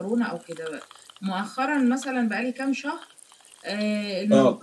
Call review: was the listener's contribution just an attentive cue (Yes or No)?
Yes